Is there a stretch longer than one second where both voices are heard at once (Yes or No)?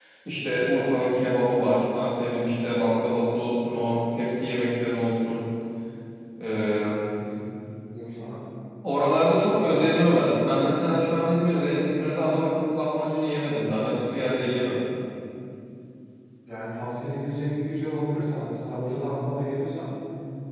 No